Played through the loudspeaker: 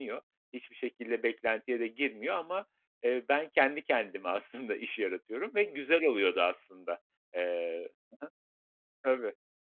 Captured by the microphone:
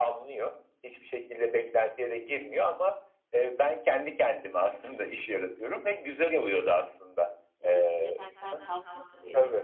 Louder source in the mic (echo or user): echo